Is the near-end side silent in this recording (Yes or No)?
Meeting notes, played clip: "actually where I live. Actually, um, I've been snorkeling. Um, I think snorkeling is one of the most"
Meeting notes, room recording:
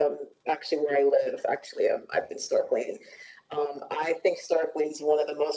Yes